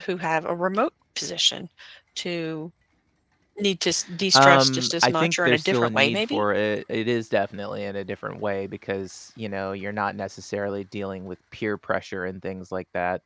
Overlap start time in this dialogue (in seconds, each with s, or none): 4.3 s